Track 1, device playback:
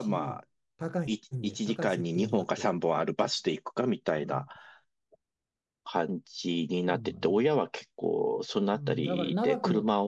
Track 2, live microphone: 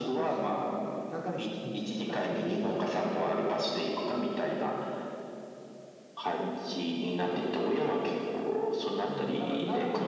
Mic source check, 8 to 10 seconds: both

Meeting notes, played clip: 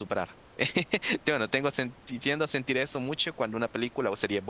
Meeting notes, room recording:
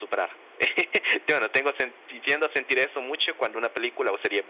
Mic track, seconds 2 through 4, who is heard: echo only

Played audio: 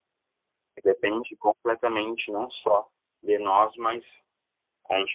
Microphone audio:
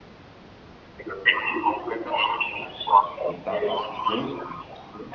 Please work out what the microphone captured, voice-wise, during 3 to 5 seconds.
both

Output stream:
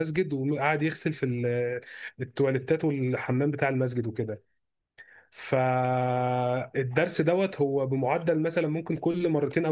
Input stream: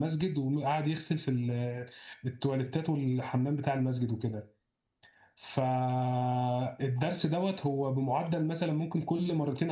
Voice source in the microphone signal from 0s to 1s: echo only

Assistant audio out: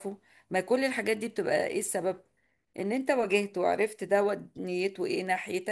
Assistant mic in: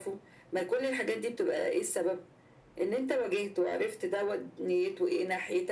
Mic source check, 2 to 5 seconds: echo only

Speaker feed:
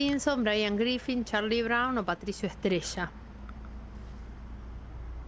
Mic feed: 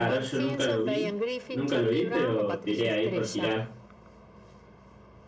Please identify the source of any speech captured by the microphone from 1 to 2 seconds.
both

